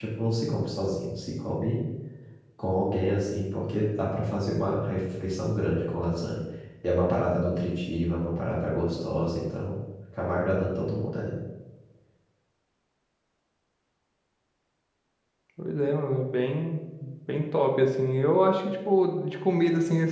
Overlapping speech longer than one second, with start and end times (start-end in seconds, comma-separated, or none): none